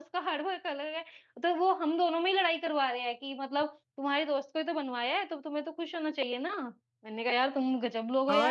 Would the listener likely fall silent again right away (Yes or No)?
No